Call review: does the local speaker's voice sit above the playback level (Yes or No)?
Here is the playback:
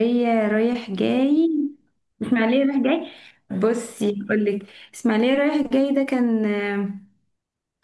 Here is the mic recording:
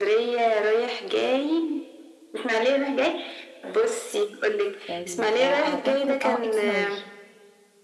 No